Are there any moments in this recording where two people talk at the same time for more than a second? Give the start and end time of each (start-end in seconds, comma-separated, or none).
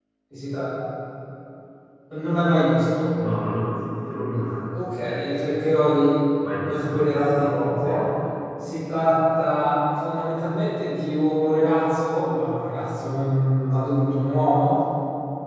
6.6-8.1